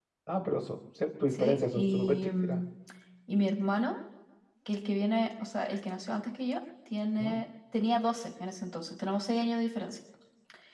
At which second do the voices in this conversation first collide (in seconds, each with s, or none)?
1.3 s